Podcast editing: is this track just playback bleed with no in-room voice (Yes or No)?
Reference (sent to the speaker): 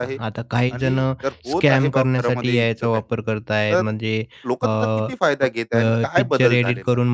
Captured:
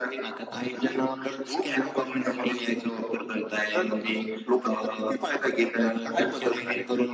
Yes